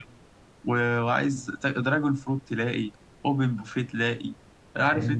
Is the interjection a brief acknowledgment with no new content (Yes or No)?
Yes